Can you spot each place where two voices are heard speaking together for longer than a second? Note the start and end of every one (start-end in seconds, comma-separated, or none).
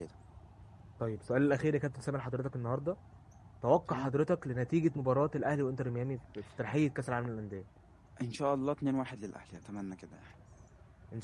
none